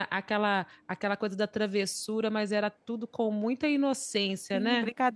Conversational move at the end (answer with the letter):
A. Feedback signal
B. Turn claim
B